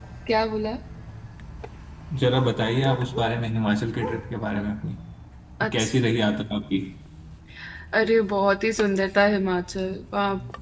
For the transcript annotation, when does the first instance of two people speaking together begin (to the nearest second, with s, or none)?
none